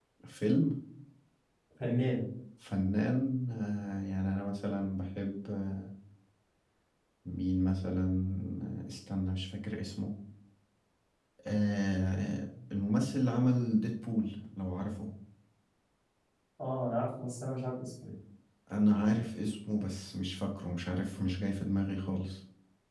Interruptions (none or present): none